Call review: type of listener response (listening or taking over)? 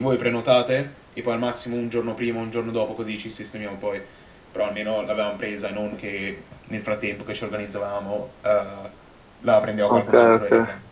taking over